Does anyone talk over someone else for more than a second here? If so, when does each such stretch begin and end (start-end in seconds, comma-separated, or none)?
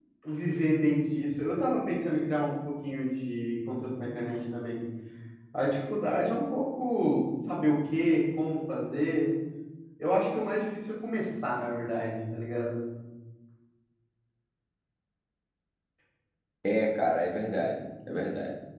none